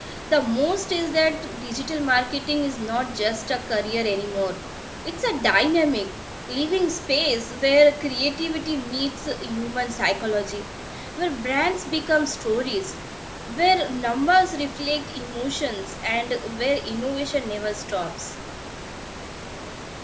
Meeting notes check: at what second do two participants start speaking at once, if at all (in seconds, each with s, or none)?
none